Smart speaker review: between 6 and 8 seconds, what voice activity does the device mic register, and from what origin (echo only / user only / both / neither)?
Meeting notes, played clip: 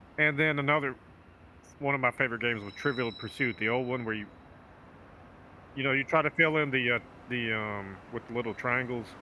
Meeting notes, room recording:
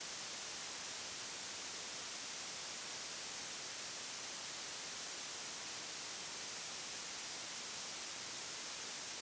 neither